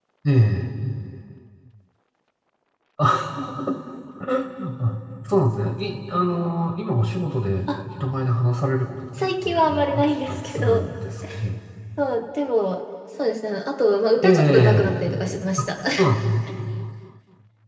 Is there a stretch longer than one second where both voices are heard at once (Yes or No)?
Yes